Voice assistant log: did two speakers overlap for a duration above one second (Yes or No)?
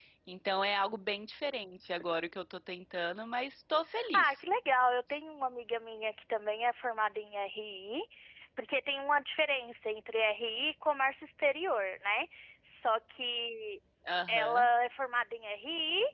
No